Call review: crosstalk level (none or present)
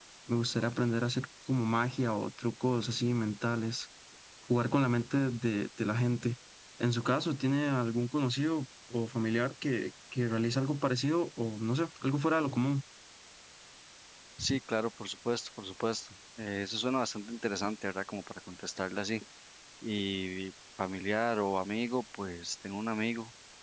none